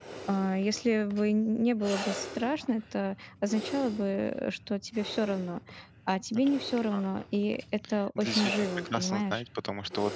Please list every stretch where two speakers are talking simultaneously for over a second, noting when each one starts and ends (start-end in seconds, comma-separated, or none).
8.2-9.4